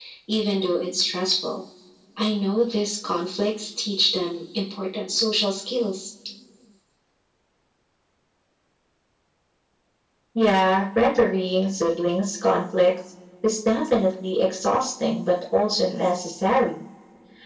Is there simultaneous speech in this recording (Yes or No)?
No